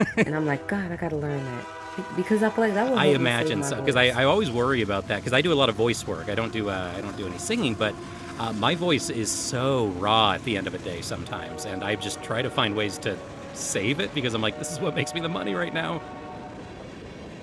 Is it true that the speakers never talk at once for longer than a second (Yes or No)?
No